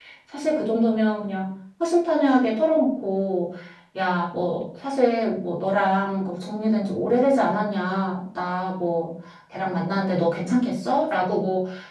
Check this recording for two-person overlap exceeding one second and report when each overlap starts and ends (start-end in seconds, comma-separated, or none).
none